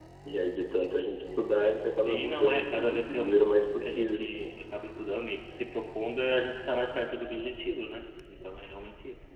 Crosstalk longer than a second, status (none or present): present